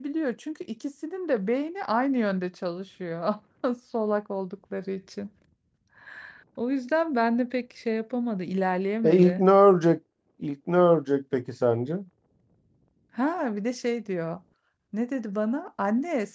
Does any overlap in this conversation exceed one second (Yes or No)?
No